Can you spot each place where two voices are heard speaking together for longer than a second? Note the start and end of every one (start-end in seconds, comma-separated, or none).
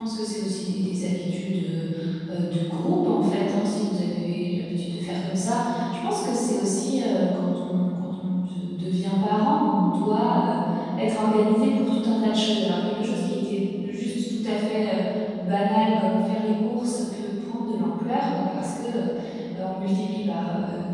none